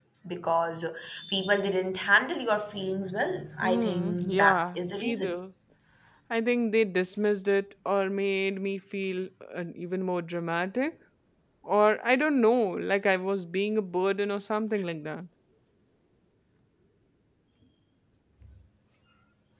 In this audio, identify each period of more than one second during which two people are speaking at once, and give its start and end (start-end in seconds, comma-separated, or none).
3.6-5.4